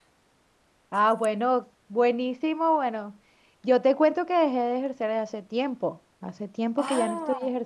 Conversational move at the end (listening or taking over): listening